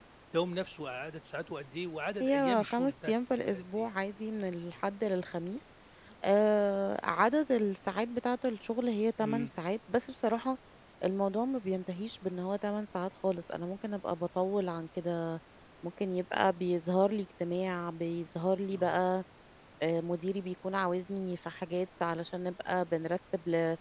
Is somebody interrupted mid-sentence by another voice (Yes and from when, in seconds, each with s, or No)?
Yes, from 2.2 s